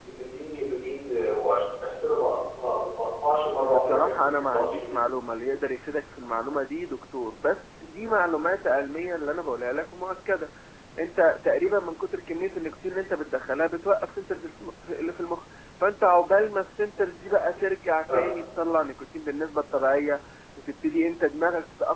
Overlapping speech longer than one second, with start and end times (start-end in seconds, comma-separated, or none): 3.6-5.0